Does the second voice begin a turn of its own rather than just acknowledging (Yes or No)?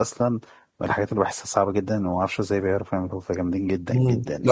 Yes